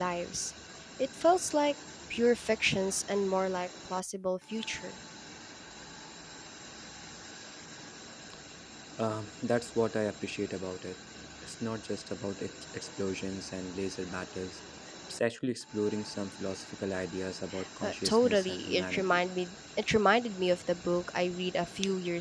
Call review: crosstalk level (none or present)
present